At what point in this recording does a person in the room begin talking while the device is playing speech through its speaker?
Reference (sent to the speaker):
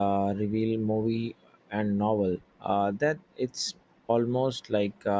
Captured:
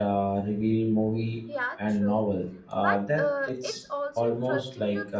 1.4 s

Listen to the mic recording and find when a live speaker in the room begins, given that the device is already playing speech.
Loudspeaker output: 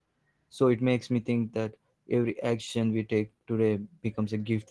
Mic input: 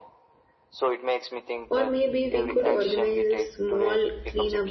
1.7 s

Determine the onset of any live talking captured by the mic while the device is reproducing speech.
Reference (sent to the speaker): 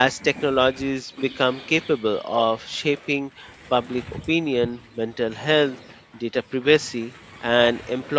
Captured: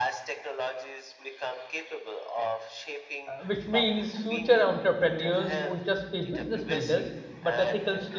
3.3 s

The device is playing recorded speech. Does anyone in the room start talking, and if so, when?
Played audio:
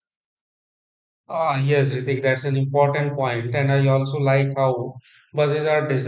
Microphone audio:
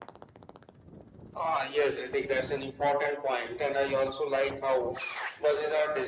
none

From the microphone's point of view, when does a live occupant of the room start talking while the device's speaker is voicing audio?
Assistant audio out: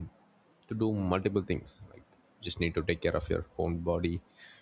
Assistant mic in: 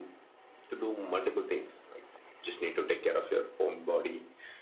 none

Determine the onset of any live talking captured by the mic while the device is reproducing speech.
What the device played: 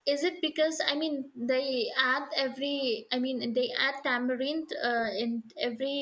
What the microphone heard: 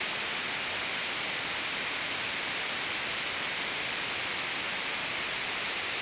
none

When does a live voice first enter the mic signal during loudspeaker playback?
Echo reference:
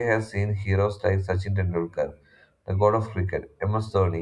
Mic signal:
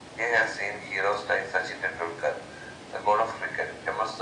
none

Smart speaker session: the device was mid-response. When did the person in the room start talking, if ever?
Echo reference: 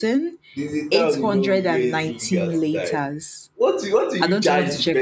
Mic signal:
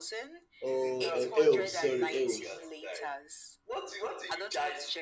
0.6 s

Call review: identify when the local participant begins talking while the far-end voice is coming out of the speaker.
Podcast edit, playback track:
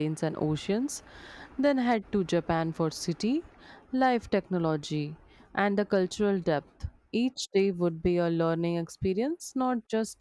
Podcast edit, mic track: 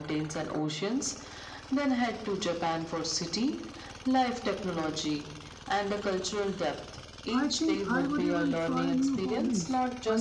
7.3 s

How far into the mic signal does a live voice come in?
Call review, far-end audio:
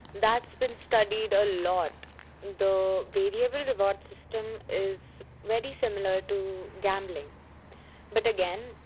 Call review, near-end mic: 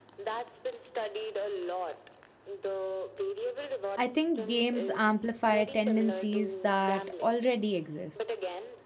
4.0 s

